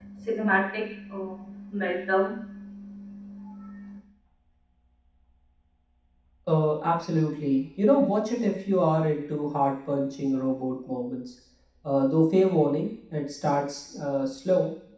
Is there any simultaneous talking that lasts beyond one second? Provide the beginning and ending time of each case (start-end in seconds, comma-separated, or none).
none